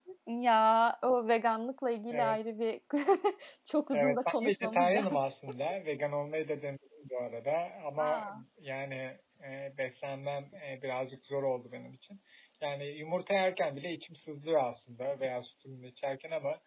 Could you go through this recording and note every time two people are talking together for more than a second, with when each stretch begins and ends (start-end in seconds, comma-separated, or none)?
3.9-5.2